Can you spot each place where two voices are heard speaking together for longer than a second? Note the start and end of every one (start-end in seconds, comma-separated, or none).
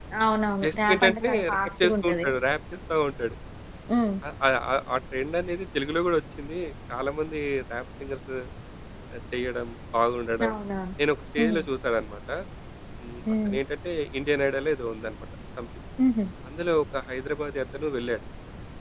0.6-2.3